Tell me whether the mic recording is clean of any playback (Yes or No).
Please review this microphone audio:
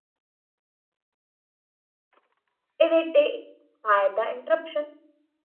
Yes